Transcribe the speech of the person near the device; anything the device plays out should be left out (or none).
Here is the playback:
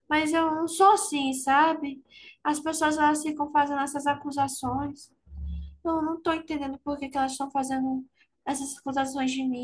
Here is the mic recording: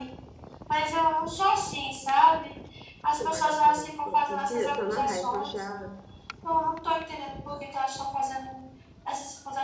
seu vagabundo. Minha filha, tô na raiva, eu já,